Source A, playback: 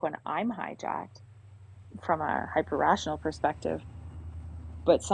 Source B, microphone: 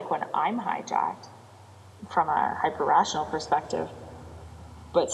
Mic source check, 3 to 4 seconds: echo only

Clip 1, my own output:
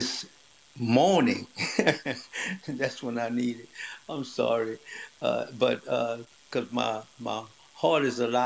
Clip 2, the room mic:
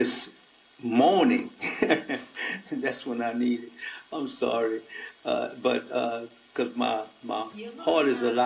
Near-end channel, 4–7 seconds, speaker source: echo only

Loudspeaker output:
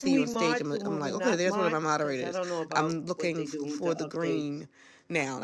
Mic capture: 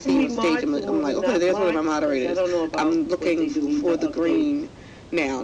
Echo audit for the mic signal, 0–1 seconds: echo only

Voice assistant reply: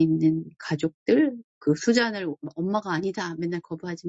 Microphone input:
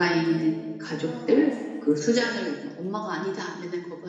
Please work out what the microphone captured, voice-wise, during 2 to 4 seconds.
both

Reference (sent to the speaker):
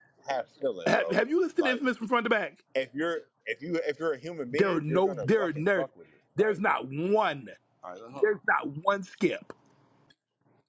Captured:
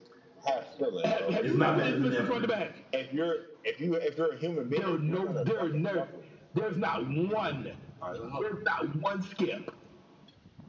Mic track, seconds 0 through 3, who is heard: both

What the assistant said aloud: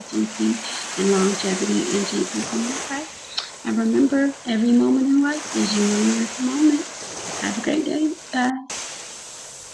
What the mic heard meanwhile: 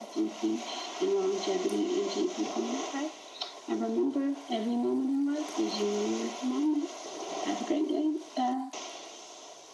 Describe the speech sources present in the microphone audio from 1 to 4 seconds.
echo only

